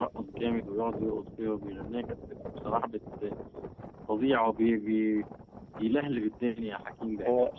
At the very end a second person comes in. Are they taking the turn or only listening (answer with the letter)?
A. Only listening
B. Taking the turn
B